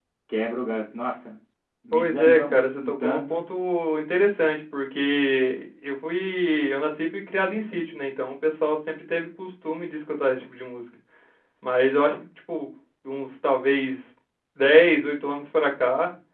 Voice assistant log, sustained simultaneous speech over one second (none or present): present